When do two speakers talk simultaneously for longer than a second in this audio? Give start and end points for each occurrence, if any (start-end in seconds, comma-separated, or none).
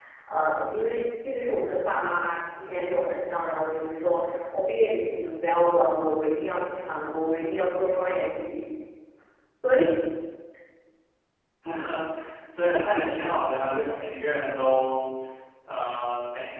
none